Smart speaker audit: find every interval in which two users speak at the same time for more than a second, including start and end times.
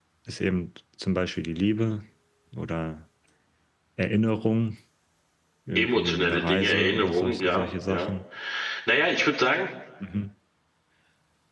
5.8-8.1

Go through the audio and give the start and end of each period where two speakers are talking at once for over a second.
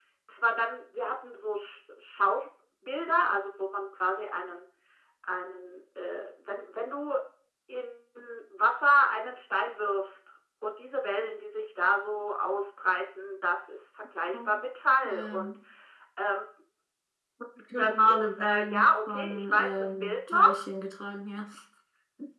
17.8-20.6

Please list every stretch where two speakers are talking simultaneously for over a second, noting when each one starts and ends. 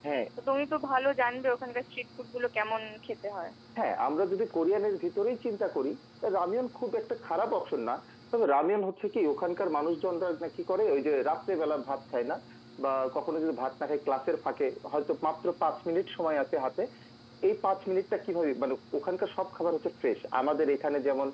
none

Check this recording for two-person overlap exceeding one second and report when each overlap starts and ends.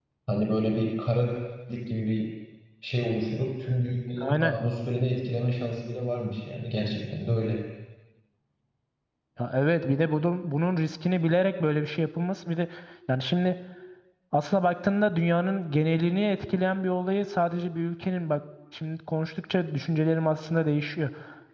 none

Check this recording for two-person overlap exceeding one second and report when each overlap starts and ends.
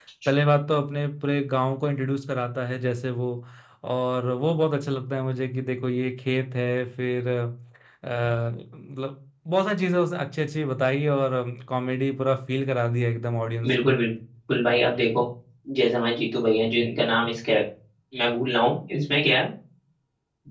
none

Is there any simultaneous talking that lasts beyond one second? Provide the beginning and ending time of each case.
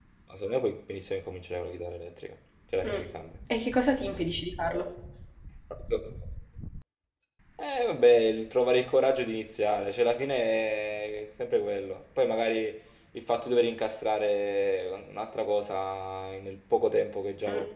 none

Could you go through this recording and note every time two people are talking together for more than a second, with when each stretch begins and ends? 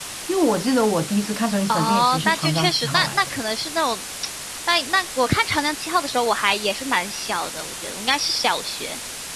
1.7-3.3

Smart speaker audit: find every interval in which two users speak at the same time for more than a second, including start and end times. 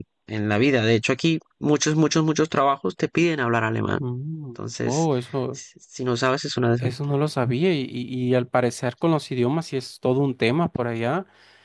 none

